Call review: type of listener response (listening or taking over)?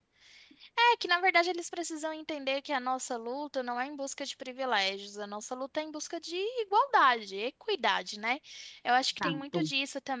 listening